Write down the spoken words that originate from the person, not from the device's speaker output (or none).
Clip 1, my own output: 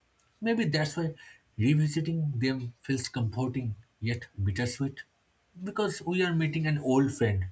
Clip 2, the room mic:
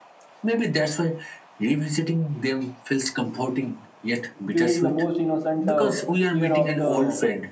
during the most innocent uh, year of the